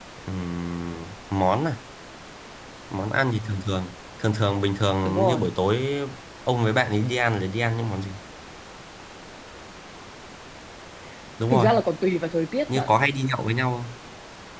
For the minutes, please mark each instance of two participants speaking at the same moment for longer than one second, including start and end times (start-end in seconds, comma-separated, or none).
none